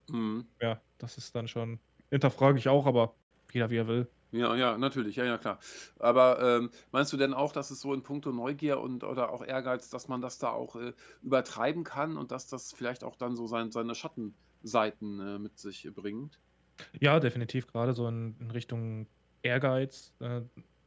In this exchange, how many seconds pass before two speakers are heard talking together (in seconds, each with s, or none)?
none